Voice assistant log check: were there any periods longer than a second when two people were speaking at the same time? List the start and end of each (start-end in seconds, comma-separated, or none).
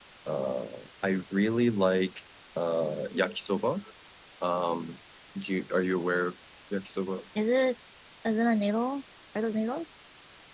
none